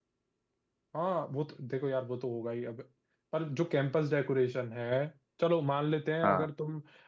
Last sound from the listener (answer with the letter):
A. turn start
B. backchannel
B